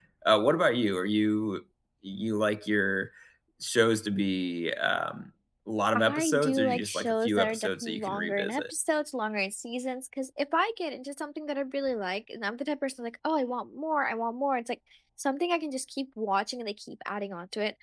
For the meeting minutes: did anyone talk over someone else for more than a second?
Yes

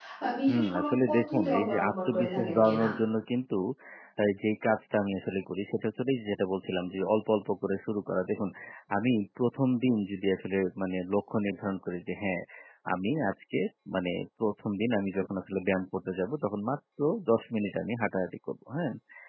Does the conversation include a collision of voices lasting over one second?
Yes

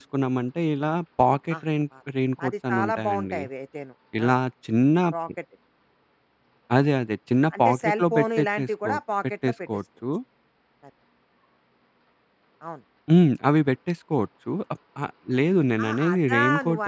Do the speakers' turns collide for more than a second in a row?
Yes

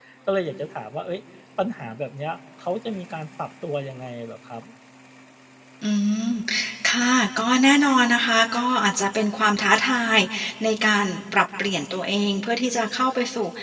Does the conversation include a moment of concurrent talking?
No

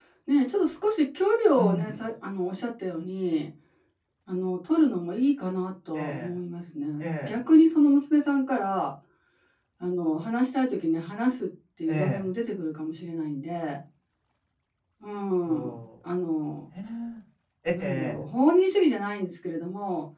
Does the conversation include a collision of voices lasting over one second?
No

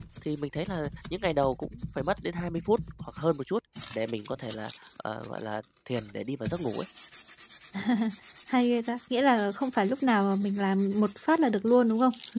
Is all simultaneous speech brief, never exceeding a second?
Yes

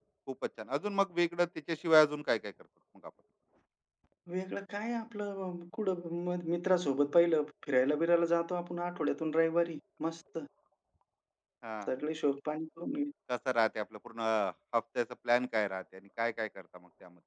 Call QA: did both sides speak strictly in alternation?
Yes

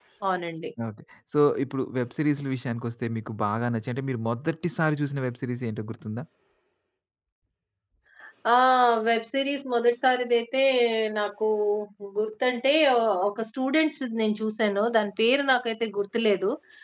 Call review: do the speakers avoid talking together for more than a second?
Yes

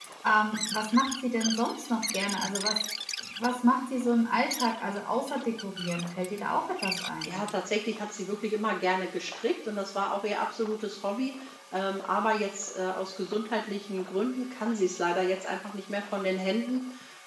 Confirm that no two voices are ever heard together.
Yes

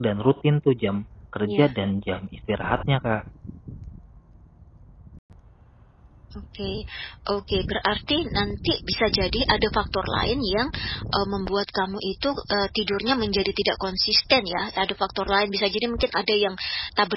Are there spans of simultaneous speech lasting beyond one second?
No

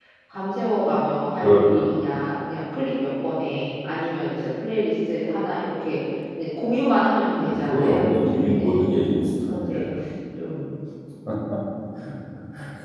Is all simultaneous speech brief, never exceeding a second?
No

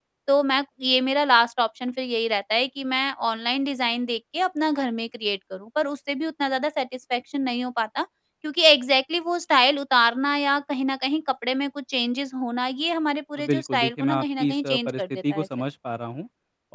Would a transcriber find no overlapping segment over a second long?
No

